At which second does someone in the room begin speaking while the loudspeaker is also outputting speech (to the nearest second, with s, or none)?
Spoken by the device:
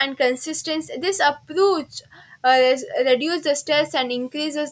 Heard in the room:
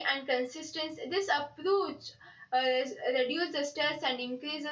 none